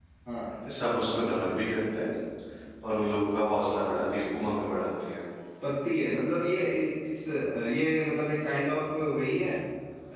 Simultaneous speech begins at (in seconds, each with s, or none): none